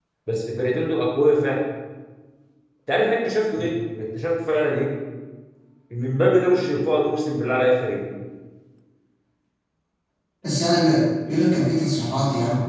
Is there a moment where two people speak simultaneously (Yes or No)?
No